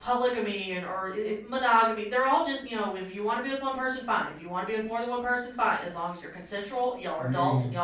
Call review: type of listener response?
listening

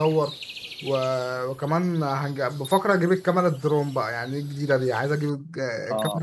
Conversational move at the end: listening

